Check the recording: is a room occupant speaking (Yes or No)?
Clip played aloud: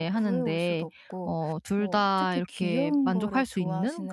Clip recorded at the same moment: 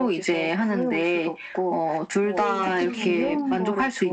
Yes